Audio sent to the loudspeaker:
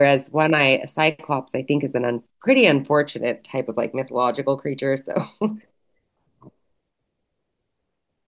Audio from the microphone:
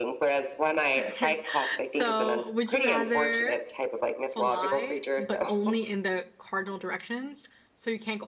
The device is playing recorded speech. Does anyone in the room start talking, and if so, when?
1.0 s

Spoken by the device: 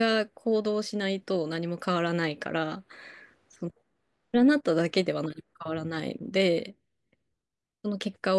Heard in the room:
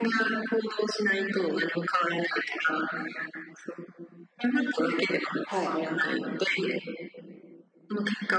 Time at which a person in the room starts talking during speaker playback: 5.4 s

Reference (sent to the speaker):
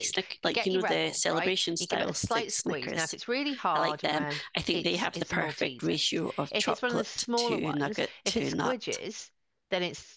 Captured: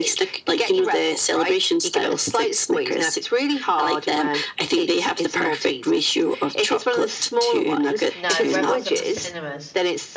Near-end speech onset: 8.1 s

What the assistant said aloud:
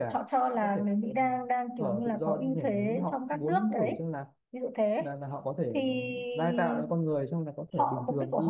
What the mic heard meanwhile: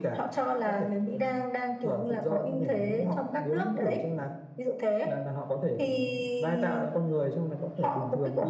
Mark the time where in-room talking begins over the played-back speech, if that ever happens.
none

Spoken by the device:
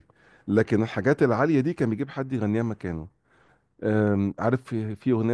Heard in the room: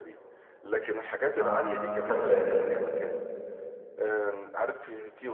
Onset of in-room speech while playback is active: 1.4 s

